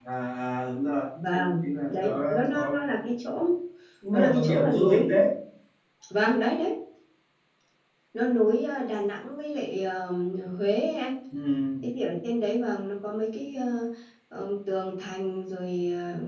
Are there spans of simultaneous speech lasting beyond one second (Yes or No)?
Yes